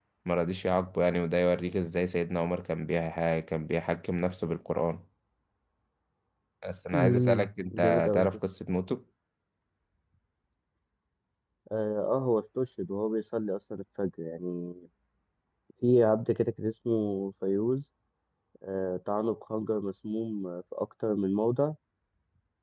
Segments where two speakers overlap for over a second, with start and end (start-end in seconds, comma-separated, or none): 6.9-8.3